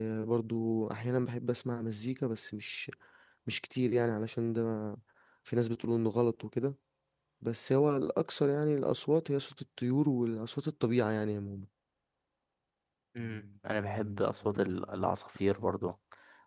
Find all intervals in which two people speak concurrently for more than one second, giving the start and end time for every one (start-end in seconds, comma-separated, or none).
none